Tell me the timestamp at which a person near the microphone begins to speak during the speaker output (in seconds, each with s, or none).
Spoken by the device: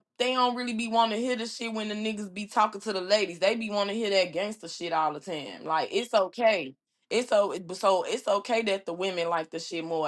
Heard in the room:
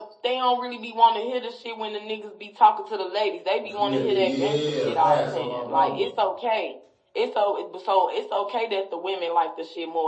3.7 s